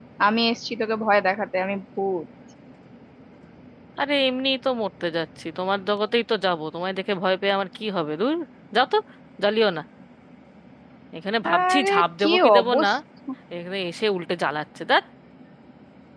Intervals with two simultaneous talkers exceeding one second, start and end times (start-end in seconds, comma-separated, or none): 11.6-12.9